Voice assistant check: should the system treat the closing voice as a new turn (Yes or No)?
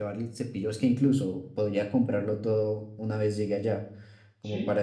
Yes